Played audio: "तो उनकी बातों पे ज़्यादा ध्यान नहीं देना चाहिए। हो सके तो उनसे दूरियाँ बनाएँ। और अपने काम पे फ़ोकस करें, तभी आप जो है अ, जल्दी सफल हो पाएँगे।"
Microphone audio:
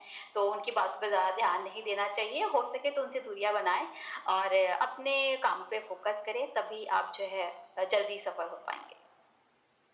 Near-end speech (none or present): none